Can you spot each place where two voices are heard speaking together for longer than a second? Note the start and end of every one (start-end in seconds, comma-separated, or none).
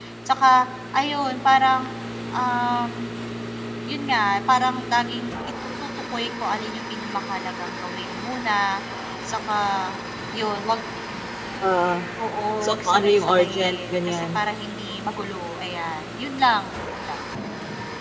12.6-14.4